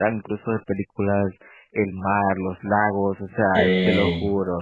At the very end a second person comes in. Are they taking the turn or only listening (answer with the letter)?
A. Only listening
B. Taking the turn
A